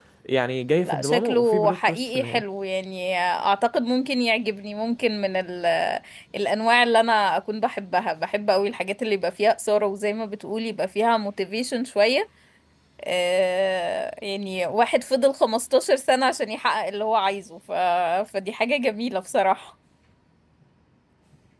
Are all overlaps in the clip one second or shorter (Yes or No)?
No